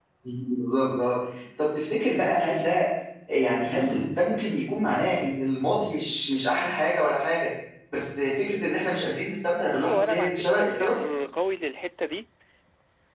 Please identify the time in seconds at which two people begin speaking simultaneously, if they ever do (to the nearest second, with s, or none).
10 s